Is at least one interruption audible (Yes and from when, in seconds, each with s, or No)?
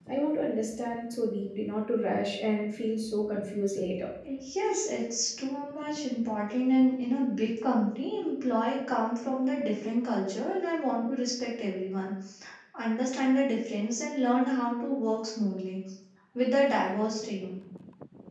No